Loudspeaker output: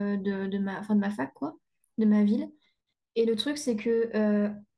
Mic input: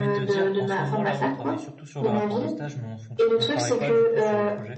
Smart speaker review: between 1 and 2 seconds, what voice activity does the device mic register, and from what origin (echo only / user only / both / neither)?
both